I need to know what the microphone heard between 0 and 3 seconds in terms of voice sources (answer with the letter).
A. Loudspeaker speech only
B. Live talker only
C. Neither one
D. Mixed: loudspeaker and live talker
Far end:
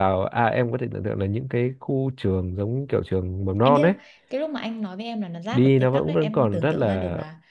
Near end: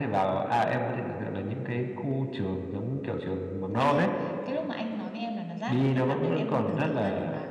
A